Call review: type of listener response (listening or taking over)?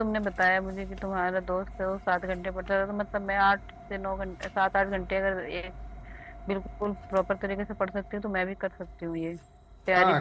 taking over